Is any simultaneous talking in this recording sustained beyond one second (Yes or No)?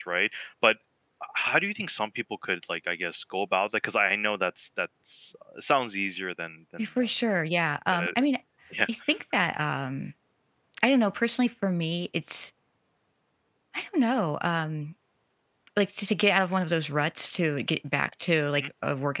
No